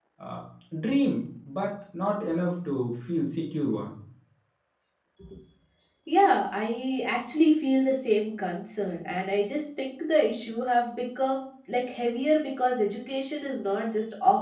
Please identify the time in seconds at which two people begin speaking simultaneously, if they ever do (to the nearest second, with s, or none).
none